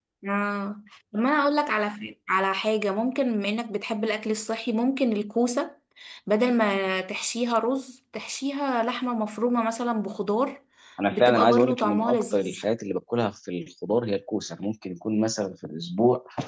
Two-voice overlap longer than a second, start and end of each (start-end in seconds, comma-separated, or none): 11.1-12.6